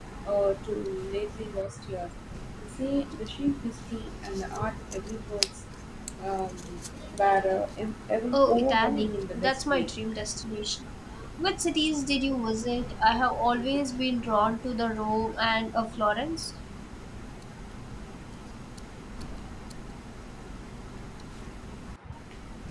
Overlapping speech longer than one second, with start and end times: 8.3-9.9

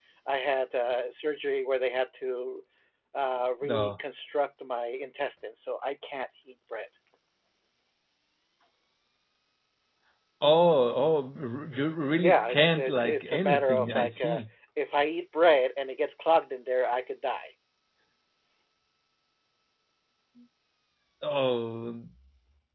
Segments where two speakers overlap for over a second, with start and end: 12.2-14.4

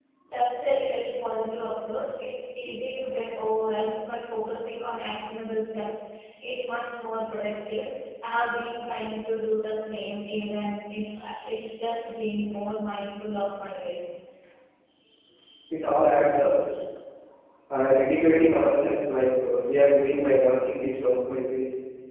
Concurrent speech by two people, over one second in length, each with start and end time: none

